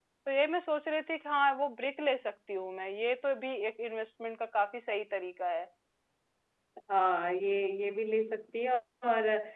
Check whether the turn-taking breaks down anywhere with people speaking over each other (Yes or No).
No